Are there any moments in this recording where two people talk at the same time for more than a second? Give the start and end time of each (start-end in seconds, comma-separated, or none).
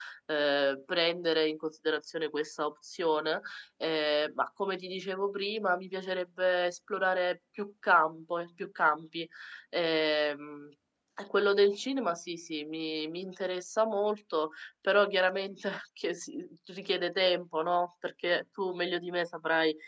none